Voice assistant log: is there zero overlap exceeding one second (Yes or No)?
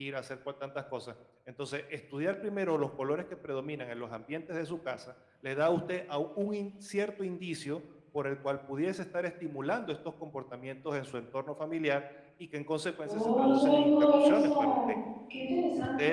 No